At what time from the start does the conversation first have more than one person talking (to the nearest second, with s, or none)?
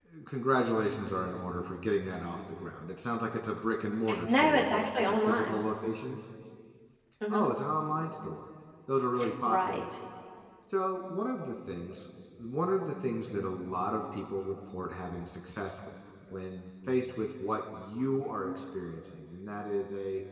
4 s